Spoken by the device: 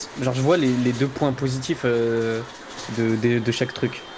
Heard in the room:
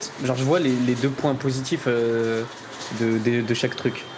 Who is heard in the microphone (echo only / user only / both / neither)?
echo only